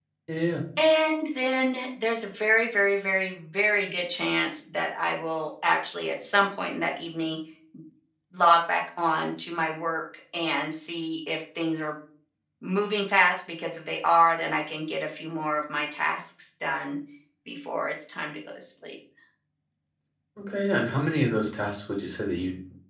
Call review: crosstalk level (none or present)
none